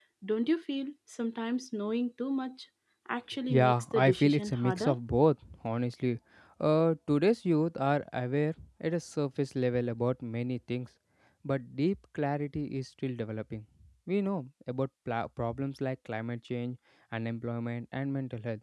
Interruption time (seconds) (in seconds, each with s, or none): 3.5 s